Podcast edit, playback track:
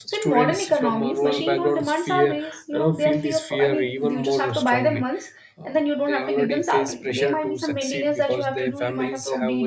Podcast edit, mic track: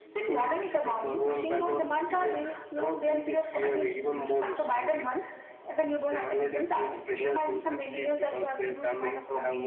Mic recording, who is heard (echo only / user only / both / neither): echo only